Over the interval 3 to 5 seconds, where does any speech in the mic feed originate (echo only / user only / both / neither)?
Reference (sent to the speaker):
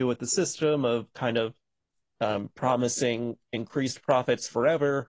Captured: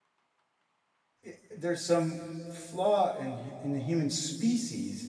user only